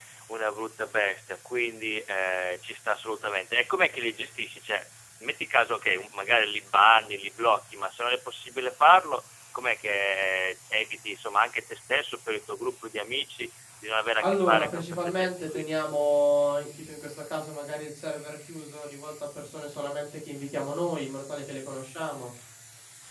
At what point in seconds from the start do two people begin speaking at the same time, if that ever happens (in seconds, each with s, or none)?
14.2 s